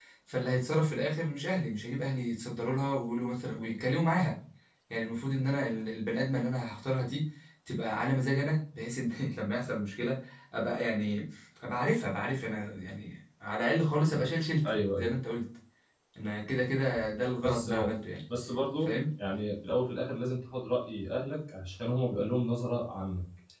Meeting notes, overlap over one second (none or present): none